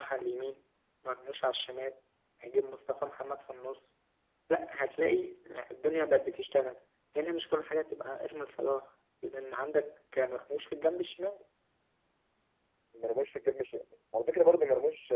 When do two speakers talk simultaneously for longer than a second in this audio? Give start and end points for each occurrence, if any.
none

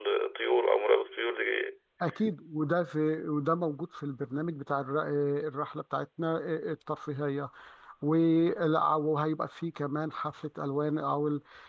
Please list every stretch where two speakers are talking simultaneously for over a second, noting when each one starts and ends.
none

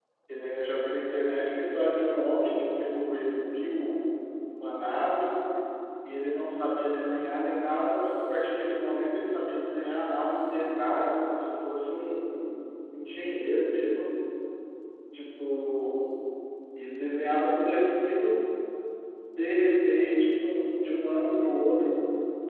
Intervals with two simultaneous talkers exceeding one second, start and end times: none

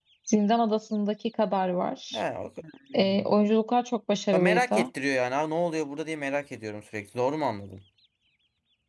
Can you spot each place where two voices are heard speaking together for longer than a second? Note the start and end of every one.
none

